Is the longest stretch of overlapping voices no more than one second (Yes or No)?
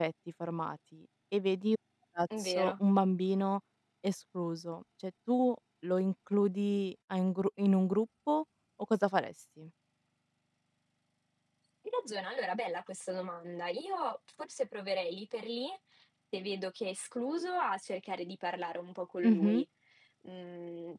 Yes